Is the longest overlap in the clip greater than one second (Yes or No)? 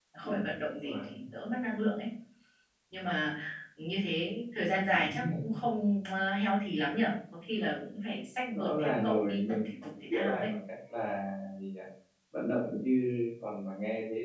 Yes